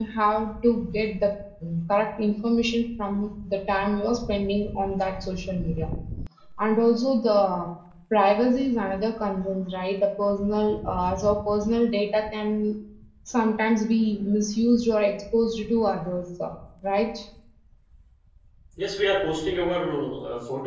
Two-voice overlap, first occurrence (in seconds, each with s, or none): none